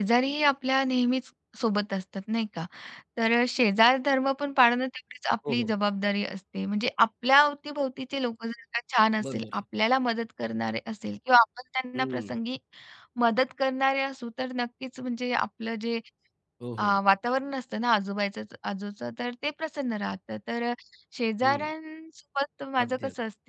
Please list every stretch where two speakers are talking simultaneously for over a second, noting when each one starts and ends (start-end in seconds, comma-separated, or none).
none